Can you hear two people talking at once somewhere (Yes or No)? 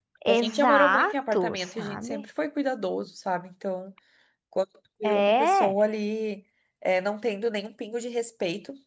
Yes